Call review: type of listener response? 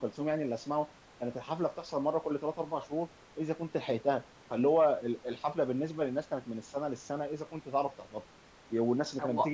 listening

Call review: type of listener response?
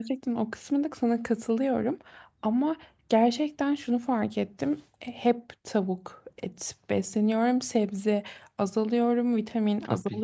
taking over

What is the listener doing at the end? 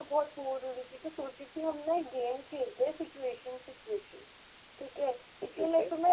listening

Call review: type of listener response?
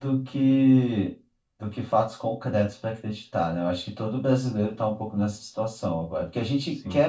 listening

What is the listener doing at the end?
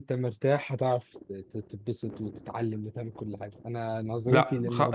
taking over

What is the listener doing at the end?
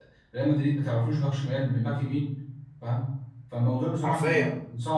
listening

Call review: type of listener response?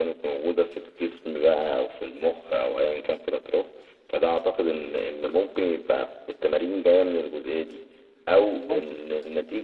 listening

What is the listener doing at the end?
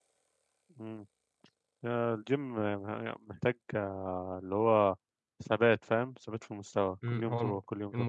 taking over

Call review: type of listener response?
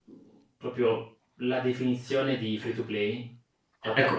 taking over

